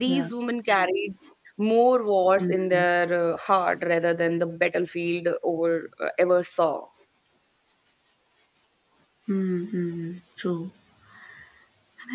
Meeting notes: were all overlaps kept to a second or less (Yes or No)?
Yes